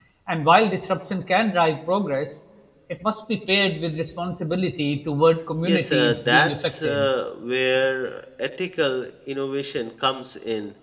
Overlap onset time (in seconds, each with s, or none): 5.6 s